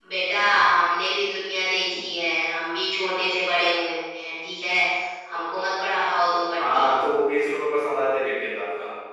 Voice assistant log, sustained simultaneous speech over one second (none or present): none